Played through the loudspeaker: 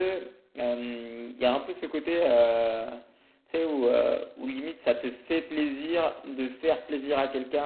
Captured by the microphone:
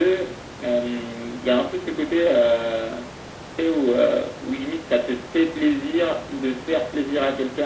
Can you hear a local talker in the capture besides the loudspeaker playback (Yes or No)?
No